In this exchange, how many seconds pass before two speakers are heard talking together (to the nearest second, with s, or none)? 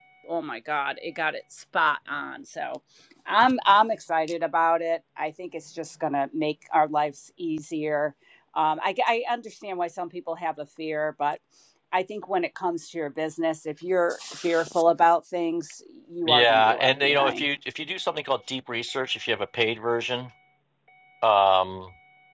16 s